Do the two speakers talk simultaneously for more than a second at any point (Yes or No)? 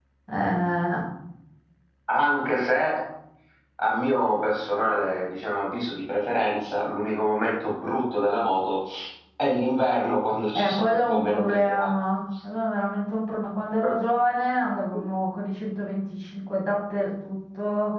Yes